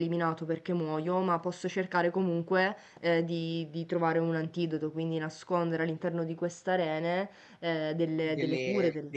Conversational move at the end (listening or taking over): taking over